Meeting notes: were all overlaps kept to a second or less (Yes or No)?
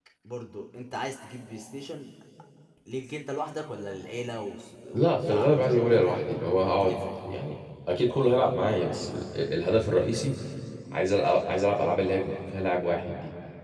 No